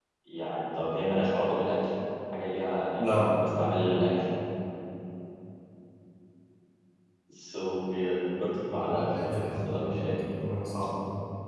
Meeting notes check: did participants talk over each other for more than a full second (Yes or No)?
Yes